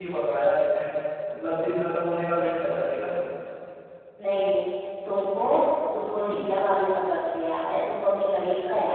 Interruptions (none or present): none